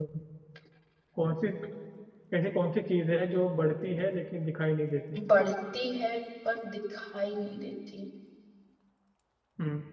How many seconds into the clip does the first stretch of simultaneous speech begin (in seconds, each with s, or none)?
none